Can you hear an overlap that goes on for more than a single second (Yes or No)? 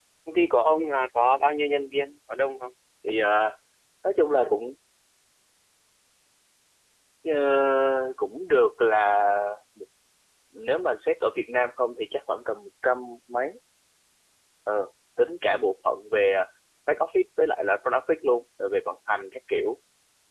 No